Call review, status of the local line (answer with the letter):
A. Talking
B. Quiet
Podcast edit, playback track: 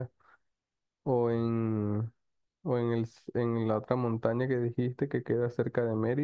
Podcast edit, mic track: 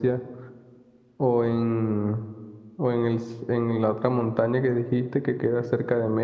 B